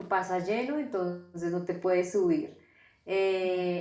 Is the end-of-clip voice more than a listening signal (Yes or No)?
No